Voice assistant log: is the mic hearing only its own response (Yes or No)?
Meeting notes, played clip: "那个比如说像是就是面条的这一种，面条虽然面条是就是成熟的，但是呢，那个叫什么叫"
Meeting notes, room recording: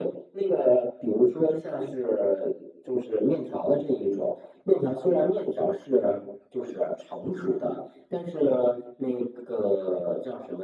Yes